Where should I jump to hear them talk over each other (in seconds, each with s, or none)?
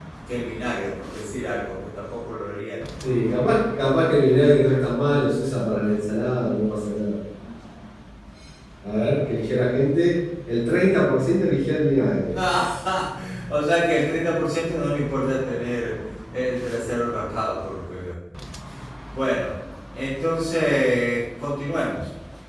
none